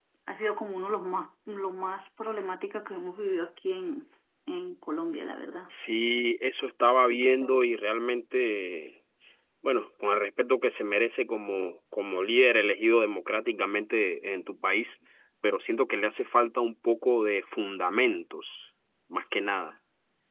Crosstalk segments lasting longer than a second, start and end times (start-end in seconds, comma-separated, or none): none